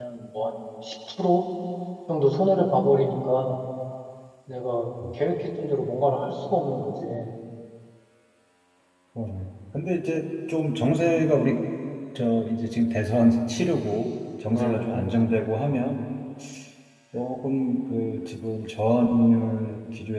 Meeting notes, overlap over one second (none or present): none